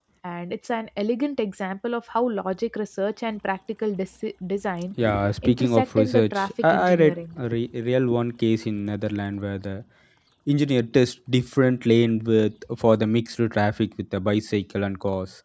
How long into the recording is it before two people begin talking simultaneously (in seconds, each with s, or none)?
5.4 s